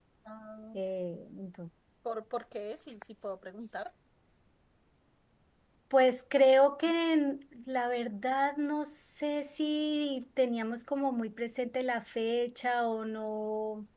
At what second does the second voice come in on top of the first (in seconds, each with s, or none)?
none